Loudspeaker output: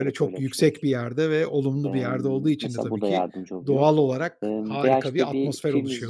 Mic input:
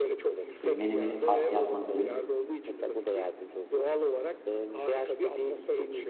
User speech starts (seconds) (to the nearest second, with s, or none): 1 s